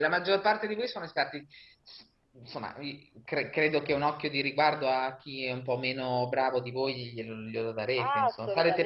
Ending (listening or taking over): taking over